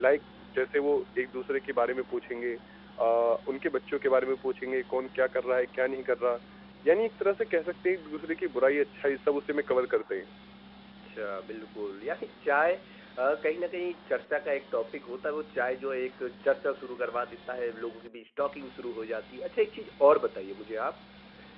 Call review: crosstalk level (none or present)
none